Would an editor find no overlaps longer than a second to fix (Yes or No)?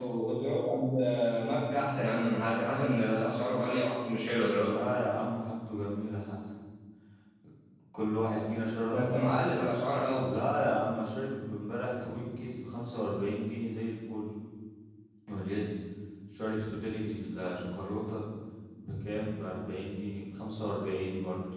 Yes